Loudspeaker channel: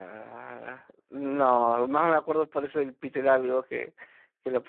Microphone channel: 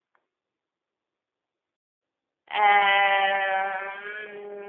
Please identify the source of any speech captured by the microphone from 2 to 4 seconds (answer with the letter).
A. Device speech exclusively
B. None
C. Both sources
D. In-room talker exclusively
D